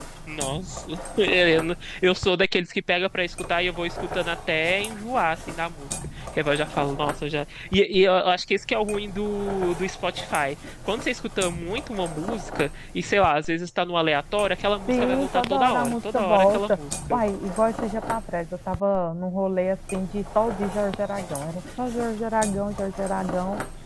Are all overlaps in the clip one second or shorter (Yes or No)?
No